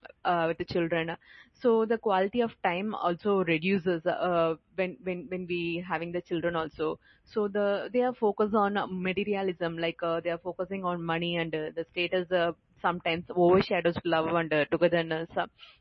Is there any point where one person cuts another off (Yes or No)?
No